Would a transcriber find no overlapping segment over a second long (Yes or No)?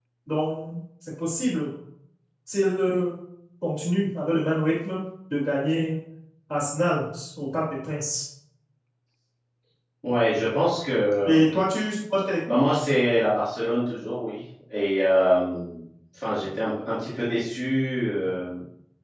Yes